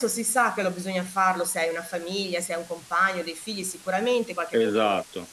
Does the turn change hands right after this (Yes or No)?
No